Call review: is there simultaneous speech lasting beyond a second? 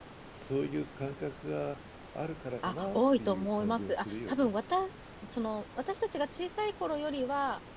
Yes, from 2.6 s

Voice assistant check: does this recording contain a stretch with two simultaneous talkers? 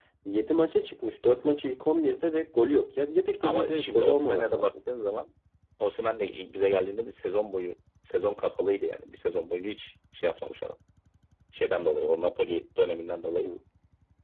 Yes, from 3.4 s

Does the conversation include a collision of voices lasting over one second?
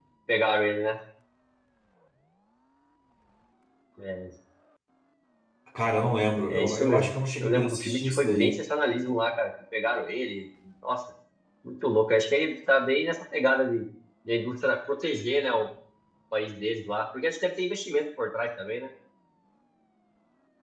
Yes, from 6.5 s

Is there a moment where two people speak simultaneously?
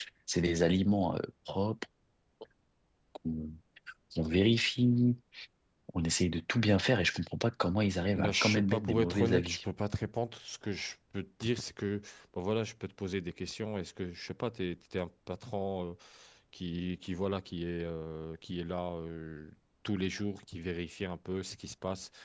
Yes, from 8.2 s

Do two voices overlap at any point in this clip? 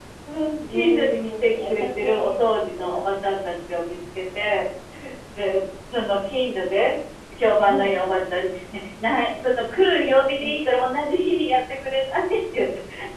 Yes, from 0.7 s

